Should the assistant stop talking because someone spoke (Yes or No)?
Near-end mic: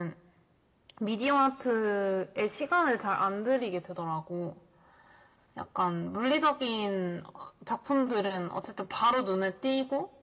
No